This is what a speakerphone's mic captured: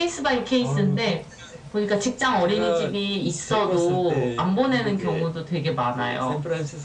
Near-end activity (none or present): none